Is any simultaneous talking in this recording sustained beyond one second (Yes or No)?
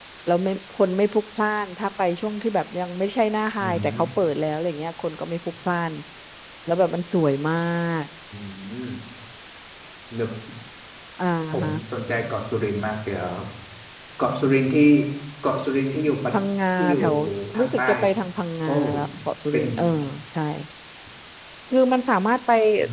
No